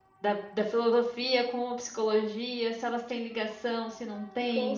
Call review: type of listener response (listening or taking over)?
taking over